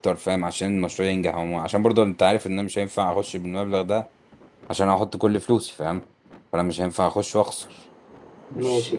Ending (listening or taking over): taking over